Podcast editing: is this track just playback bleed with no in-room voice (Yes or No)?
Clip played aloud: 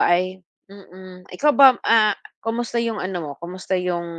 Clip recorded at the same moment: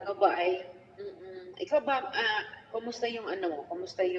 Yes